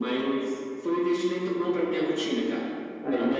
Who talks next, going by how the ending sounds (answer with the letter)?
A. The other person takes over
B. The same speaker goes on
B